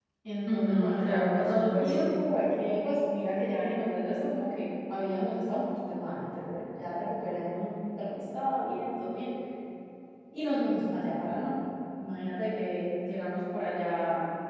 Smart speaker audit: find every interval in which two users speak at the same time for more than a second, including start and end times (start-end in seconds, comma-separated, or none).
0.5-2.1